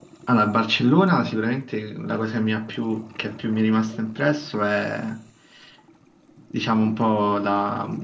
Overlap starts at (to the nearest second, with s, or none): none